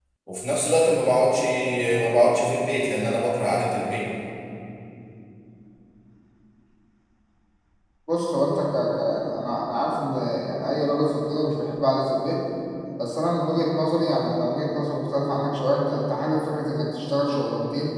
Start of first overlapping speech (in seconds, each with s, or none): none